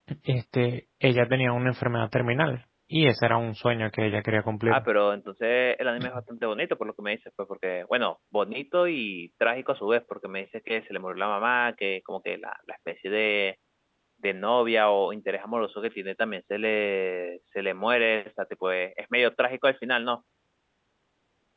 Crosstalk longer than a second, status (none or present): none